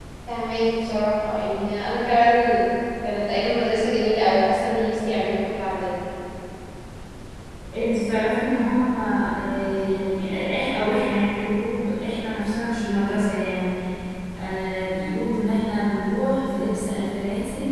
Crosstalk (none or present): none